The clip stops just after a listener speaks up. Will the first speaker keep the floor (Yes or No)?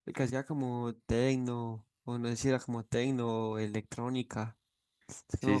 No